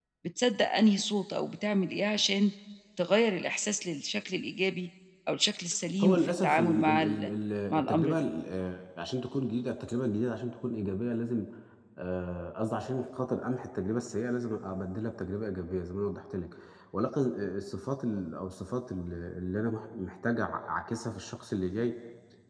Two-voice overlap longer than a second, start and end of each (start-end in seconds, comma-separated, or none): 6.0-7.3